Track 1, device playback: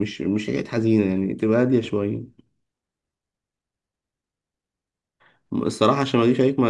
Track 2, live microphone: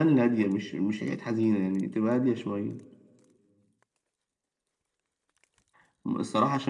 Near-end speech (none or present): none